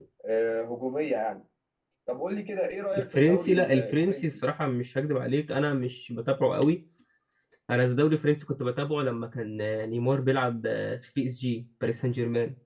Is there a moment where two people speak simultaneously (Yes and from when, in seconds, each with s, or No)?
Yes, from 2.9 s